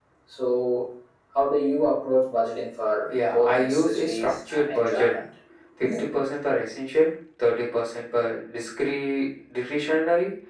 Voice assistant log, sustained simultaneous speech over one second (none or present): present